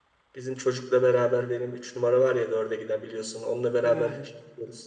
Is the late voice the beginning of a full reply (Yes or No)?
No